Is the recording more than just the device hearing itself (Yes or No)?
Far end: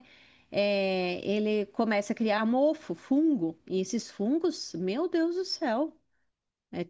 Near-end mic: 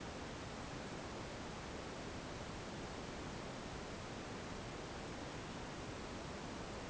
No